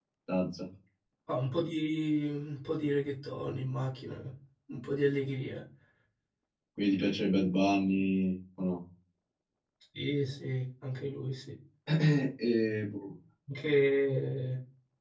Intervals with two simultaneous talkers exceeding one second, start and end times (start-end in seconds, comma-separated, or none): none